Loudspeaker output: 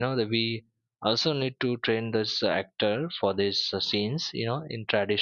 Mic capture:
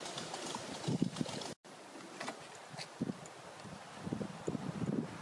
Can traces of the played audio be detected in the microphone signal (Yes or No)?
No